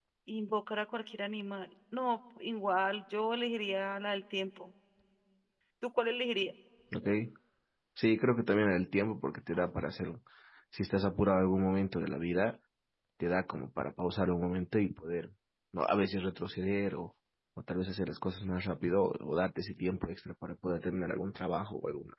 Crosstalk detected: No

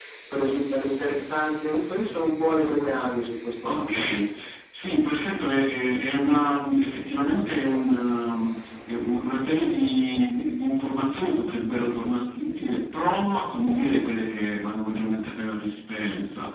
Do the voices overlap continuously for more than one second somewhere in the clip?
No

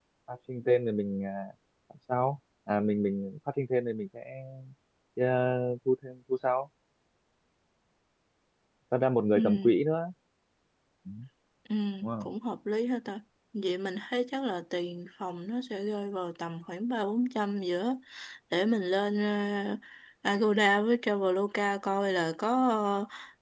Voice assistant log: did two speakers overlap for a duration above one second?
No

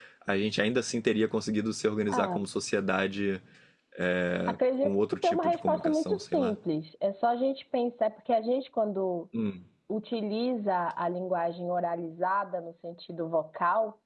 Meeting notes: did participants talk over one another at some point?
Yes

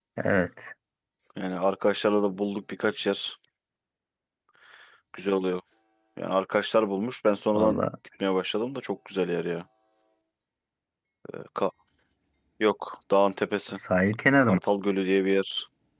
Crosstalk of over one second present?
No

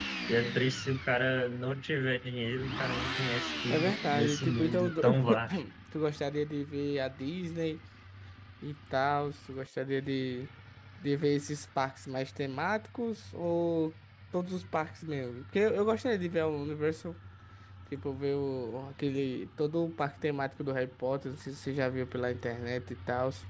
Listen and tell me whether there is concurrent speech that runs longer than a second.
Yes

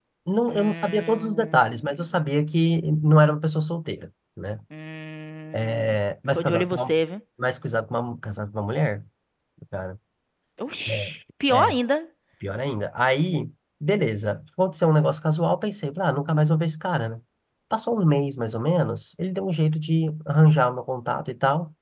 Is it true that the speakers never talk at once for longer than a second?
No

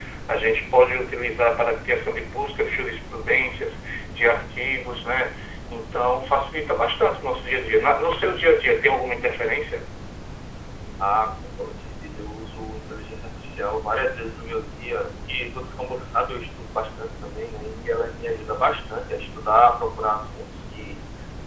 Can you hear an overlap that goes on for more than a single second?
No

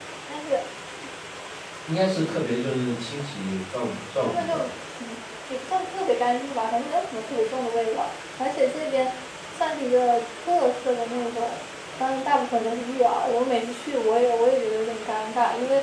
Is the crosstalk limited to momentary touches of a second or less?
Yes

